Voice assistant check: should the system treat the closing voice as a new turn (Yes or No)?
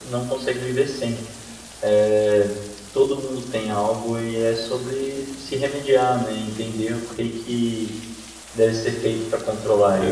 Yes